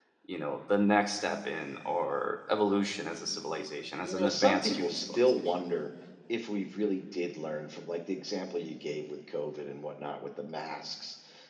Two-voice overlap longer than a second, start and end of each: 4.0-5.4

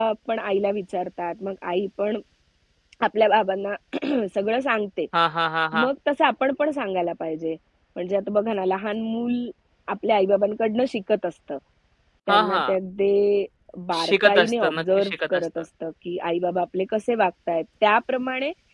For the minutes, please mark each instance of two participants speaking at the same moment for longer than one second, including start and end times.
14.0-15.4

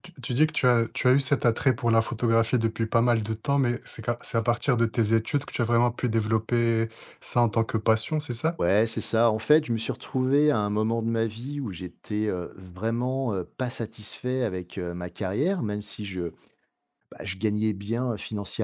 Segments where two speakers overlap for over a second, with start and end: none

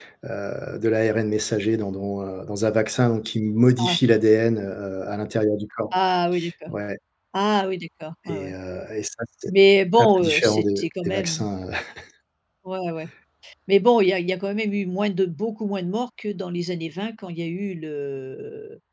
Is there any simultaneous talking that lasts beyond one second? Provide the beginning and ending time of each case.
10.0-11.4

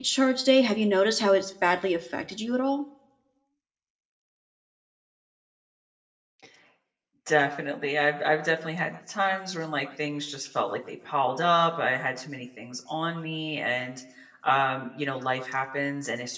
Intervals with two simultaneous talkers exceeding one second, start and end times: none

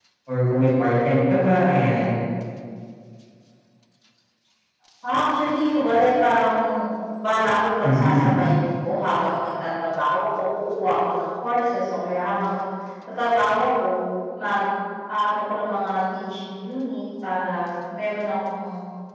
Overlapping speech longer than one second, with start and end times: none

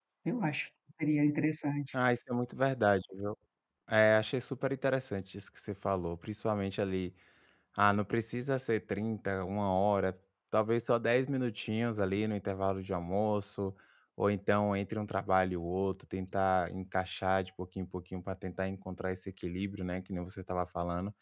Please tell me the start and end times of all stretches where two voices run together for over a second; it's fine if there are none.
none

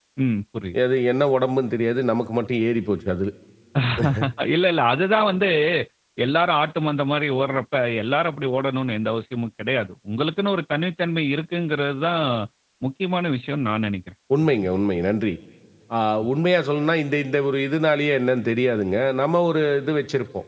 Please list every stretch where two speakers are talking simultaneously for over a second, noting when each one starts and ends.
none

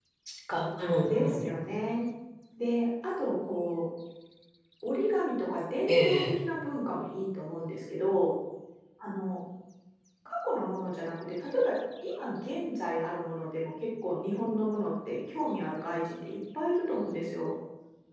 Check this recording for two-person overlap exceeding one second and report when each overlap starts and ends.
none

